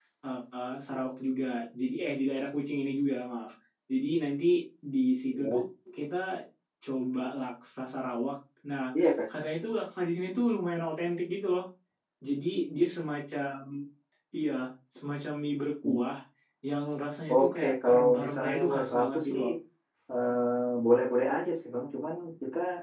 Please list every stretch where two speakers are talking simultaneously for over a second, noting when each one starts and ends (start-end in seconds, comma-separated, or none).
17.3-19.4